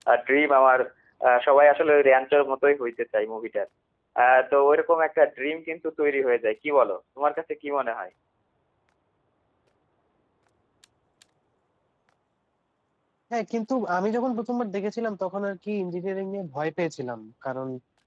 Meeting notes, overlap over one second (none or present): none